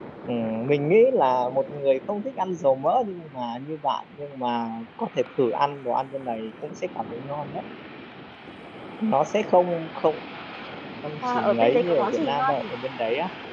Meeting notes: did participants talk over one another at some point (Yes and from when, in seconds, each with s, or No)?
Yes, from 11.3 s